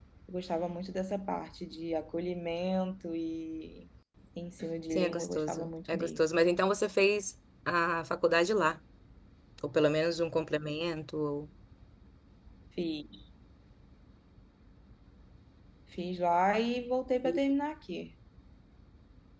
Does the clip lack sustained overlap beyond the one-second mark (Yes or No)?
No